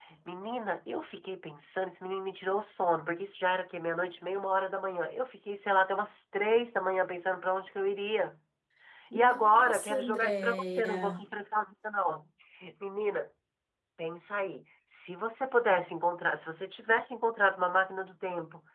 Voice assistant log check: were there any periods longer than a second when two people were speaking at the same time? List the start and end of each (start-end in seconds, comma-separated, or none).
9.1-11.2